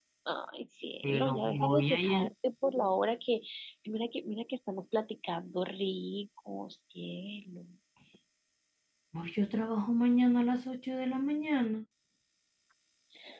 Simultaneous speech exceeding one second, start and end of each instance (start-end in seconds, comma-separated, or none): 1.0-2.3